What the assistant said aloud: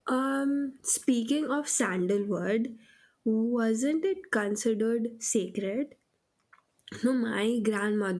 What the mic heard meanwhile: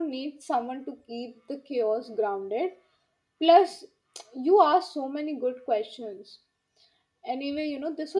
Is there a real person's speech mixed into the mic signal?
Yes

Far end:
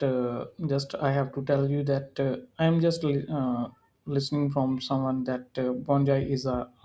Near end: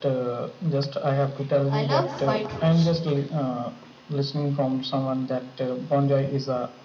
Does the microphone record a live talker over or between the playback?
Yes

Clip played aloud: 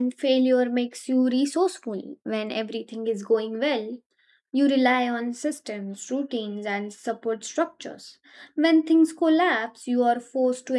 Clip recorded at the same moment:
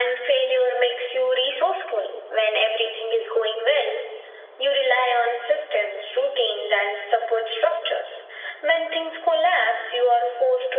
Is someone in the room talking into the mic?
No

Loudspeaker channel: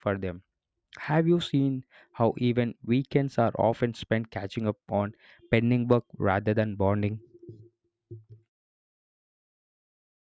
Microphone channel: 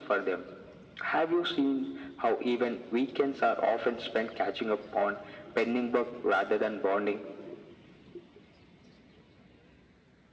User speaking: No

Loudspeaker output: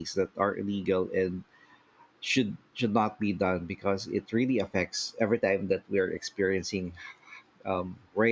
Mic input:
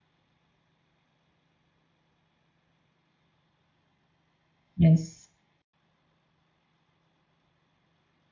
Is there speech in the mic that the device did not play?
Yes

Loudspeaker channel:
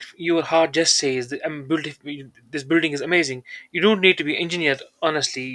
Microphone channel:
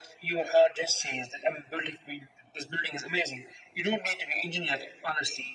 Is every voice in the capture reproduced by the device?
Yes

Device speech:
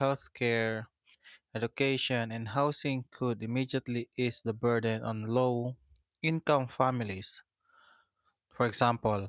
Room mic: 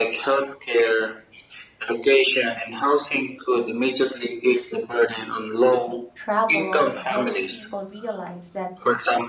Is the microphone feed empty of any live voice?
No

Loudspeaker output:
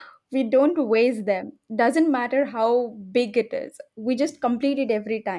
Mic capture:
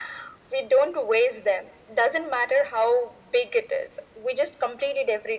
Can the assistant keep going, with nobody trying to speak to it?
Yes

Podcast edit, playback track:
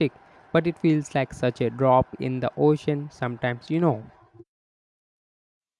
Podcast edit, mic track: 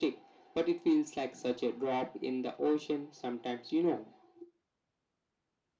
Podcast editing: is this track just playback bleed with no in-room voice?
Yes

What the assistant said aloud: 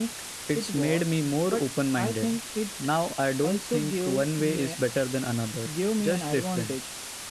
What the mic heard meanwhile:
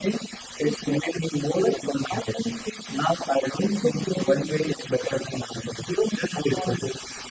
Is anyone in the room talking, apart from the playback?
No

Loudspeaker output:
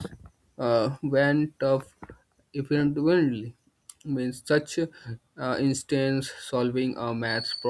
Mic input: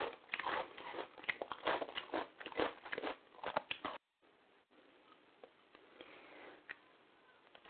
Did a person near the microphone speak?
No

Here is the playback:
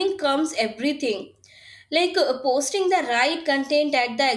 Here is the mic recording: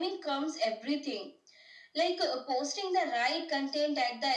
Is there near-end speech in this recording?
No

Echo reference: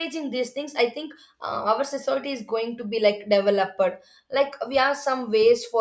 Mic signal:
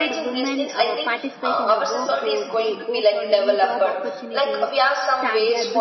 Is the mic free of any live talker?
No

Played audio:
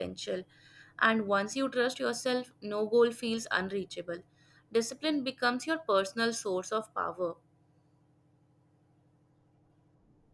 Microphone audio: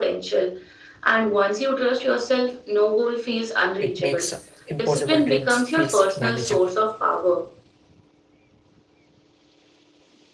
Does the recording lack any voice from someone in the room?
No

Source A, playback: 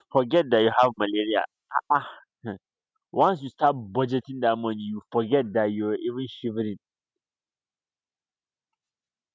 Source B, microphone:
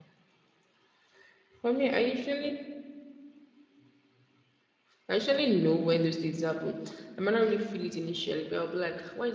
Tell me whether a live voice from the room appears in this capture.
Yes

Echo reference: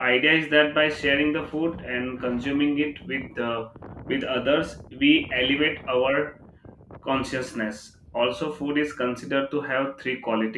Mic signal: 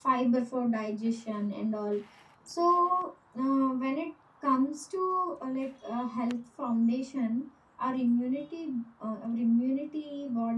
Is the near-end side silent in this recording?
No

